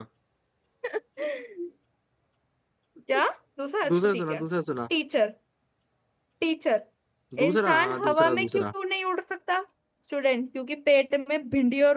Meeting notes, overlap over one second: present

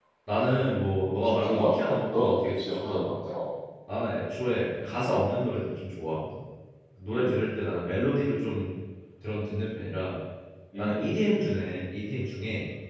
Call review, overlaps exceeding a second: present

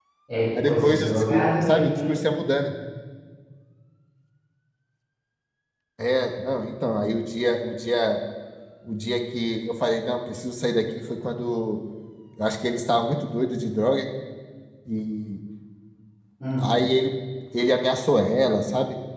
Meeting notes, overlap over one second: present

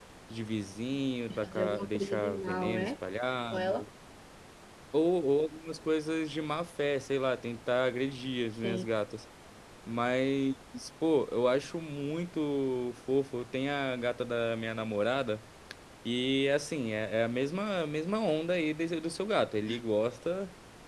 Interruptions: present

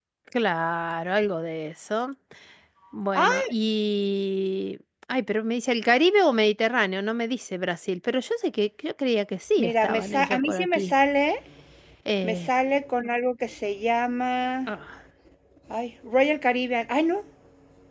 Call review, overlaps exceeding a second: present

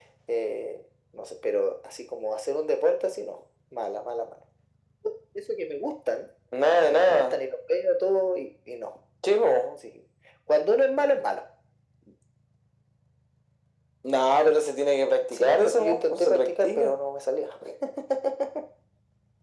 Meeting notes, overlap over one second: present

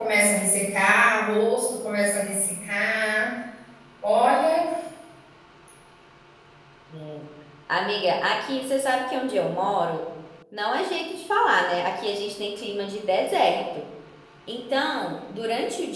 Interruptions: none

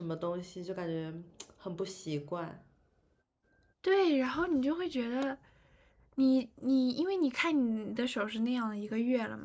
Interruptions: none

